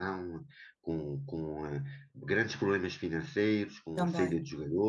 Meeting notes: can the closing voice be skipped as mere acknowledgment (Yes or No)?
Yes